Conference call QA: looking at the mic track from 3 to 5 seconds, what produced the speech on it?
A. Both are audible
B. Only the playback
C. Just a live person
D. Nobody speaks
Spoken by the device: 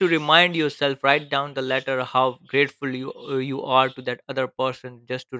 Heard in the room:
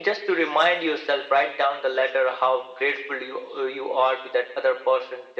B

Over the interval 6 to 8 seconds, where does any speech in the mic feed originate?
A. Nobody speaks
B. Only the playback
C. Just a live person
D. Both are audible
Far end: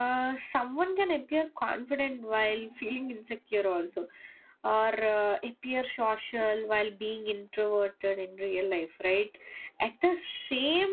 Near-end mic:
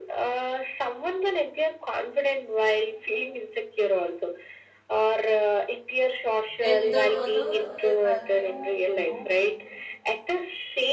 D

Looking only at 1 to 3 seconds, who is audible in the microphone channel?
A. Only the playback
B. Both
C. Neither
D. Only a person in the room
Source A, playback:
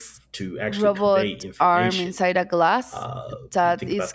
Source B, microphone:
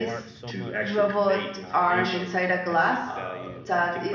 B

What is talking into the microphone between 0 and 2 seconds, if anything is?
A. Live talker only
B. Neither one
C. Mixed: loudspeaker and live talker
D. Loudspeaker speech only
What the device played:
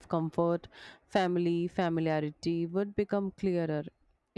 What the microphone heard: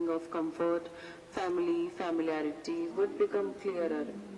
D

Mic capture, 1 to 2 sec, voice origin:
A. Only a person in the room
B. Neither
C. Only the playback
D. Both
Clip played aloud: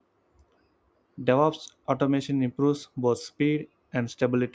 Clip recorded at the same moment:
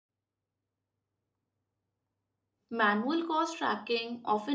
B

